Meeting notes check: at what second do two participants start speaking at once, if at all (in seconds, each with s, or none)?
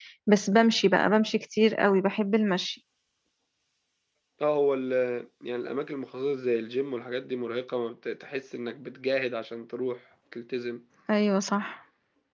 none